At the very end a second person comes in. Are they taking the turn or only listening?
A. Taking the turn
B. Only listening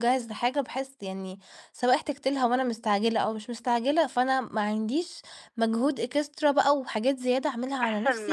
A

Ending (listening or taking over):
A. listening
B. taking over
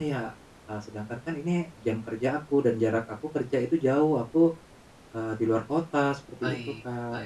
B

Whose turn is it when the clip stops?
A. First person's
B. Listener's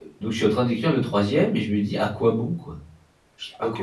B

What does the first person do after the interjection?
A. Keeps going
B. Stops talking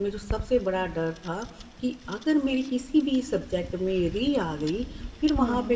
A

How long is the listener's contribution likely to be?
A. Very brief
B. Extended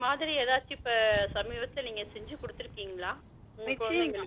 B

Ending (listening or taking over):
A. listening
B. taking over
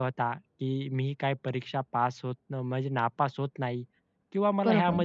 A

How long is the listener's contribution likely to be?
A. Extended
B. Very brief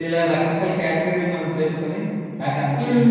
B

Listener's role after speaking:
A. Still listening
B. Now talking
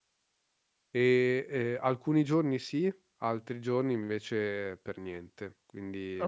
B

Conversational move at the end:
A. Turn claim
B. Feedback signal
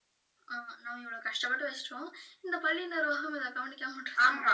A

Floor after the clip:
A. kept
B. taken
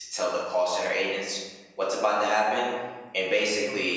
A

